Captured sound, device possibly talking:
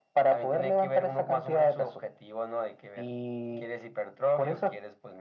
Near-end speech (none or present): none